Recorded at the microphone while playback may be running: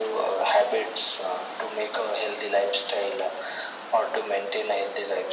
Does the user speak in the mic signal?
No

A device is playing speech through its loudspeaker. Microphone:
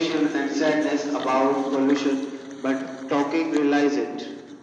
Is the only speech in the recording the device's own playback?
Yes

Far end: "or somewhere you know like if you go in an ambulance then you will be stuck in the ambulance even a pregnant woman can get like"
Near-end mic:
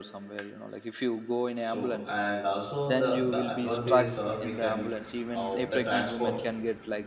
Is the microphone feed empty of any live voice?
No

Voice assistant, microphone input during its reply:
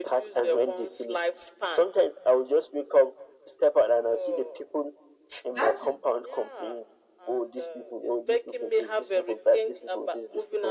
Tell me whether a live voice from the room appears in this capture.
Yes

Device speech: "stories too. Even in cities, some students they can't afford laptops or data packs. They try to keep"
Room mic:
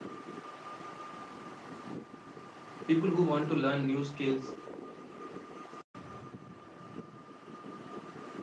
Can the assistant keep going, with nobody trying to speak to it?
No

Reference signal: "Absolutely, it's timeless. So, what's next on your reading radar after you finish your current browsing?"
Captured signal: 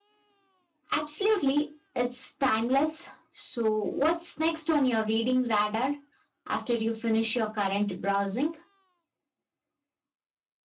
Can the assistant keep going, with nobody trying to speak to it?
Yes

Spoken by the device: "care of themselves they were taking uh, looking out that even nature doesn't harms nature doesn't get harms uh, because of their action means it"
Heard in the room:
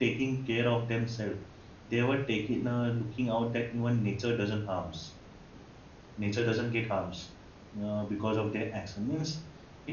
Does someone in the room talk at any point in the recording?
No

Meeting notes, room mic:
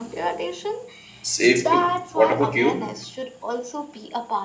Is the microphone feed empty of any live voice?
No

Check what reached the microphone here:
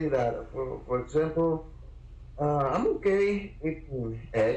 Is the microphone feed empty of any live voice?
Yes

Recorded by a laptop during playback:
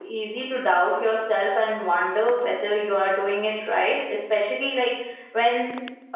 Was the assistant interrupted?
Yes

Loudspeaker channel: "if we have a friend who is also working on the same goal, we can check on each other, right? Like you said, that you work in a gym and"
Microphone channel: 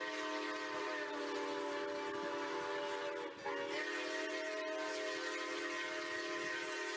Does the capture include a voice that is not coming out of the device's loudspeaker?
No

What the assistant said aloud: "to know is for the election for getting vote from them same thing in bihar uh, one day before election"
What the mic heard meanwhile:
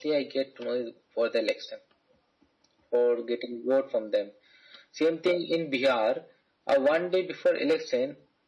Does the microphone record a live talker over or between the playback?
No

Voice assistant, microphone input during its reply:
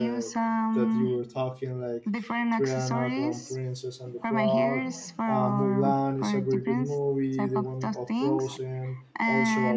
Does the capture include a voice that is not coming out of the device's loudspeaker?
Yes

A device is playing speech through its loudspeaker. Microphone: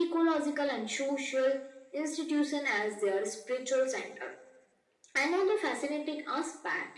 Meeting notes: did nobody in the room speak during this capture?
Yes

